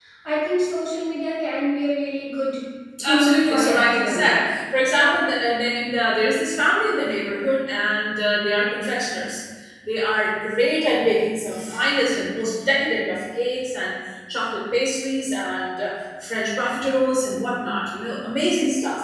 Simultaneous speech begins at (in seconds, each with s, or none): 3.0 s